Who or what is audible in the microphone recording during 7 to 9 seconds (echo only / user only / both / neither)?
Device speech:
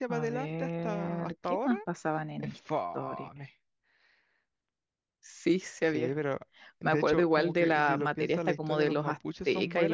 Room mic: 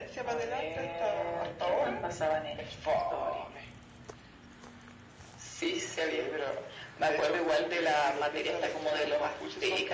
echo only